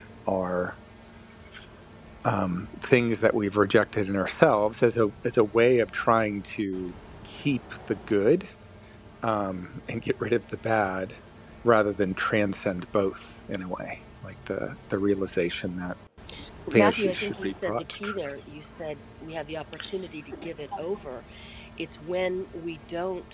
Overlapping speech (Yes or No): Yes